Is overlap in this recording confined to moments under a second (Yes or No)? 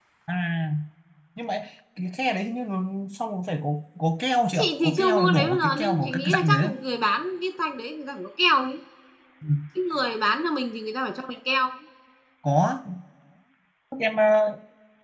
No